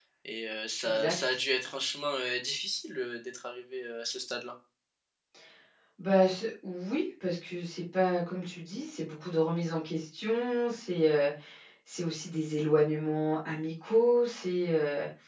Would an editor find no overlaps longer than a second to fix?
Yes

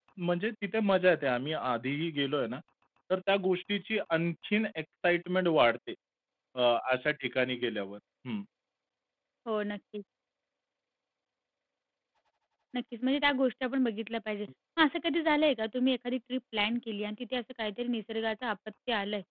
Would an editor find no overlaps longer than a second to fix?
Yes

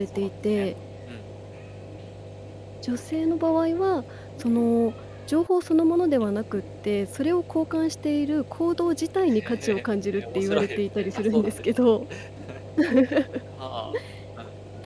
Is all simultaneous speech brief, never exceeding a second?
No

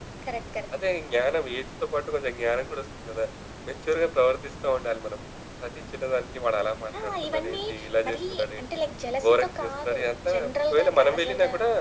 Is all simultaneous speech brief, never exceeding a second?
No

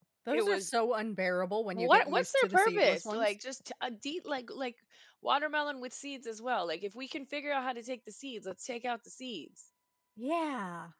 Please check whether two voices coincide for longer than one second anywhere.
Yes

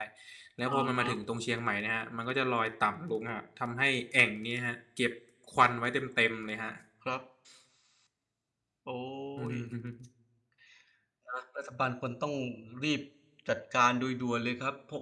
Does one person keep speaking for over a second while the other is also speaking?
No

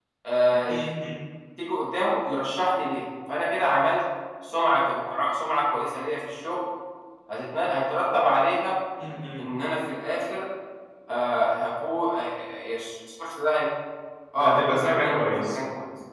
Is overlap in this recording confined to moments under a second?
No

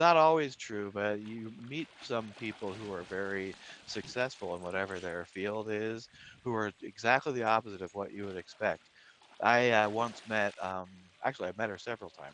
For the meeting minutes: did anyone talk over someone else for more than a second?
No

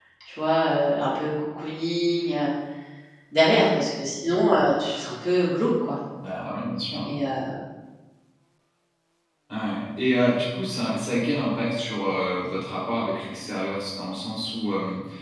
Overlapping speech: No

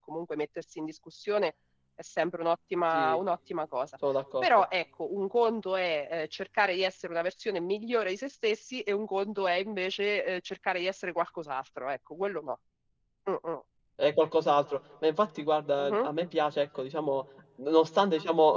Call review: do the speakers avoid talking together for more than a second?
Yes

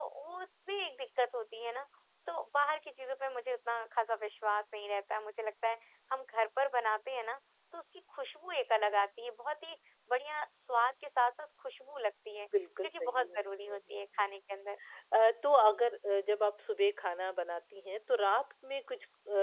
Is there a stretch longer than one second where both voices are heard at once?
Yes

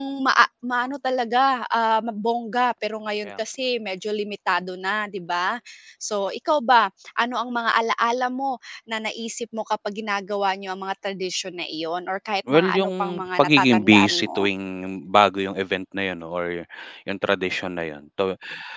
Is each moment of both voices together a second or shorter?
No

